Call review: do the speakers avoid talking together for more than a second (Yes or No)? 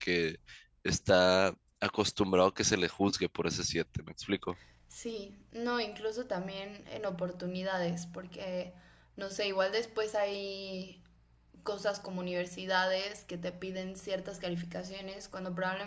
Yes